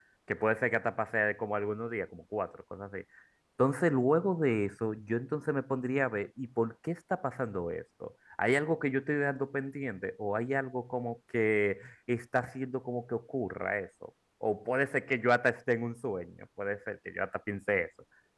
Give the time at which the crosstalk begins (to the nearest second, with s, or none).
none